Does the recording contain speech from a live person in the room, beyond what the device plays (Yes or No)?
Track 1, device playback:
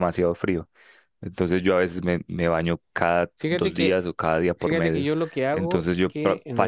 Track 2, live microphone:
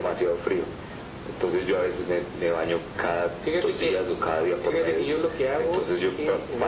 No